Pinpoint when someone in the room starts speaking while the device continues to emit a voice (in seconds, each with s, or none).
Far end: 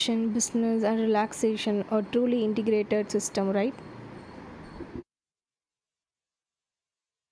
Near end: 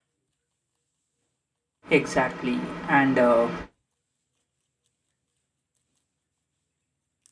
2.0 s